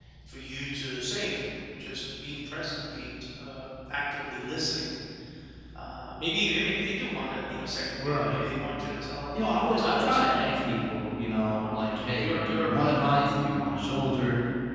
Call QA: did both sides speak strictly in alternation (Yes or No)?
No